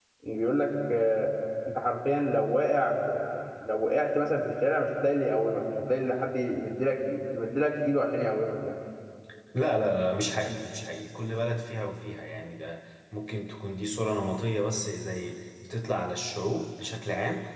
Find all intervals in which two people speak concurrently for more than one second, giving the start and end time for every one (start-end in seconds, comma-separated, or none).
none